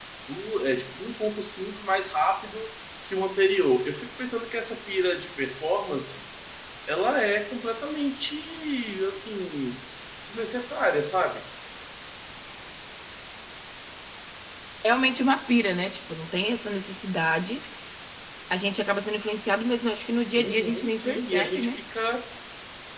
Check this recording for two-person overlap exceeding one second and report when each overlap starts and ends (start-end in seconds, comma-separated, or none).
20.4-21.8